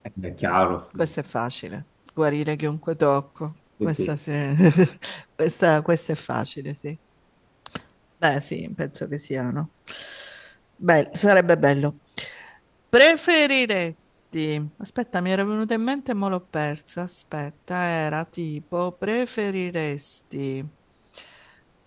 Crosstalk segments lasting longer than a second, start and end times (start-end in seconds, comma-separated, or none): none